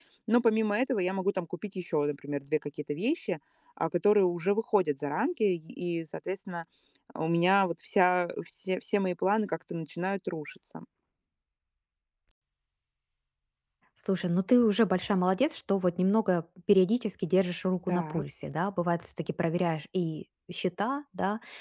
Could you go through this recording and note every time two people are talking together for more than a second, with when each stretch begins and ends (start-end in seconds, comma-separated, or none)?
none